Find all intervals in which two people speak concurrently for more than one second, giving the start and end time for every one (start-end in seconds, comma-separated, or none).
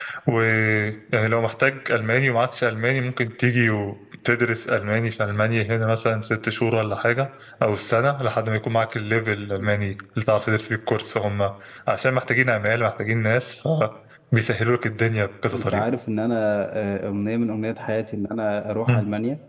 none